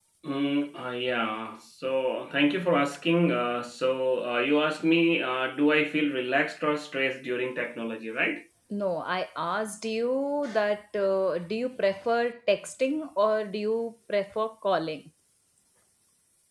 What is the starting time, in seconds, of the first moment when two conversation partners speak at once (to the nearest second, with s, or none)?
none